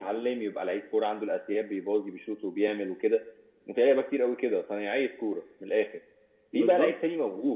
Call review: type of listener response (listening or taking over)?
listening